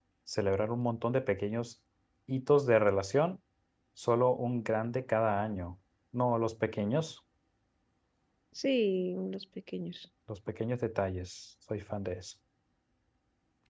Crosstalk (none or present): none